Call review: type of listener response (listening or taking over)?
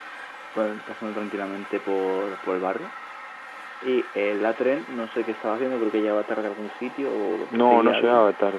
taking over